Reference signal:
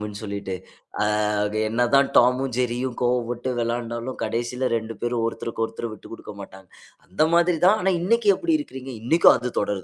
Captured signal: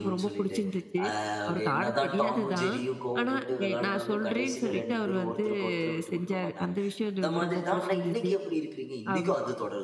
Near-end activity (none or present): present